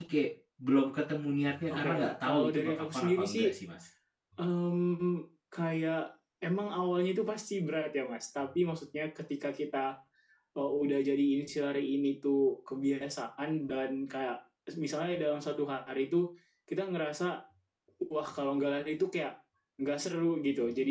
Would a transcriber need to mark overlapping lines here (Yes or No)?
Yes